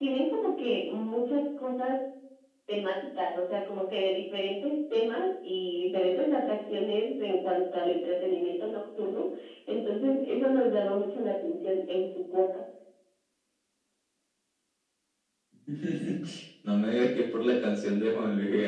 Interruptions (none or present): none